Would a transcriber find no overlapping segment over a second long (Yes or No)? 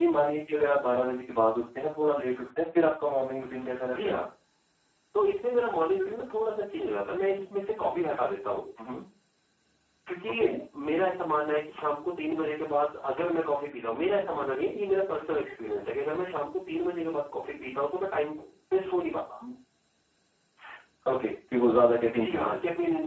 Yes